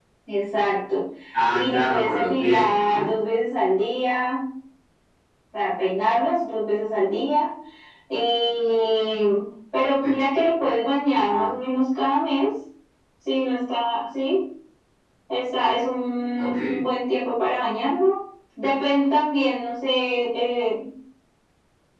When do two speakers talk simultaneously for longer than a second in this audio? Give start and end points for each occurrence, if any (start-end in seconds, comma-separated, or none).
1.5-3.1